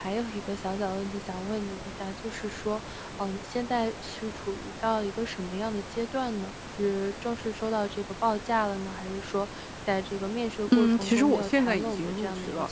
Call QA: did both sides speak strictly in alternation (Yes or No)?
No